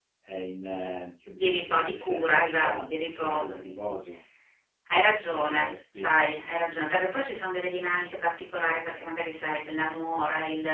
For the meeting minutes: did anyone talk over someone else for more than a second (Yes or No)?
Yes